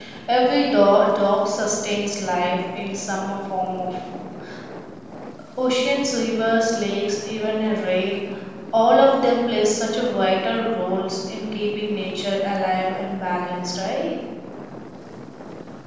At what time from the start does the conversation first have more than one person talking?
none

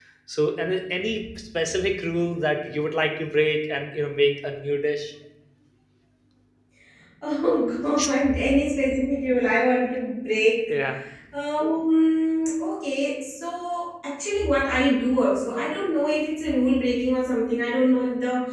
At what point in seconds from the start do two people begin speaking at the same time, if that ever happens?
none

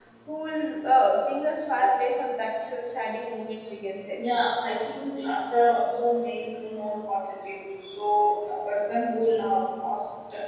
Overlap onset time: none

